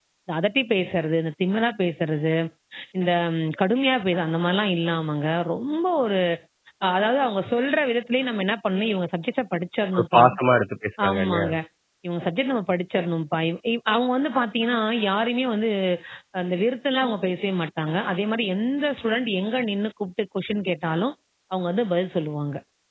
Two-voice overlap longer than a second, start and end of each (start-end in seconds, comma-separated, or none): none